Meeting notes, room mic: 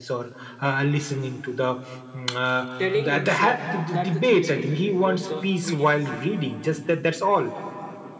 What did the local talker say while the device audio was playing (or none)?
telling and showing that's the key difference between both the mediums